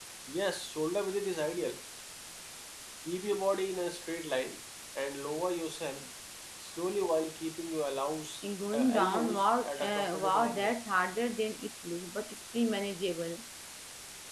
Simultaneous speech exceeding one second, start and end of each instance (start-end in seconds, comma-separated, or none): 8.7-10.7